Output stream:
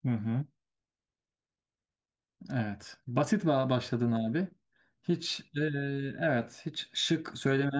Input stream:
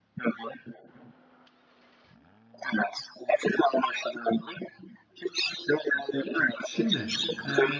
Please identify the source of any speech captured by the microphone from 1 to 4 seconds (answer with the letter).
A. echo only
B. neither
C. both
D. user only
A